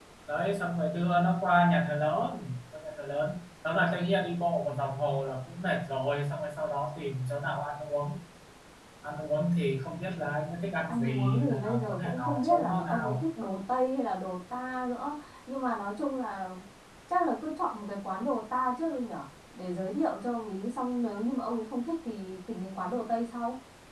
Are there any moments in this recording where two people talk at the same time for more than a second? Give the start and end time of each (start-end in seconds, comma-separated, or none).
10.9-13.2